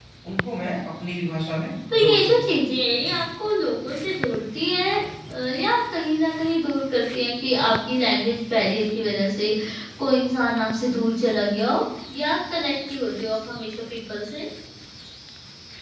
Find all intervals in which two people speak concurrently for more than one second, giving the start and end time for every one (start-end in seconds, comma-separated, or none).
none